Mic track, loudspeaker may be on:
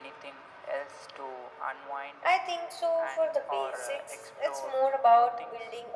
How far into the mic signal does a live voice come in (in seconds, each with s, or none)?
none